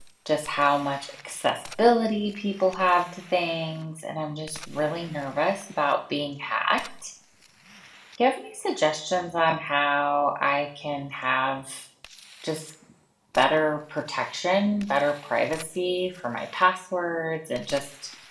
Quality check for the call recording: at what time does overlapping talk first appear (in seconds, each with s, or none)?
none